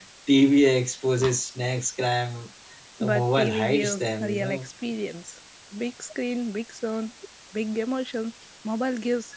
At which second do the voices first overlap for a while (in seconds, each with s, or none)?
3.0 s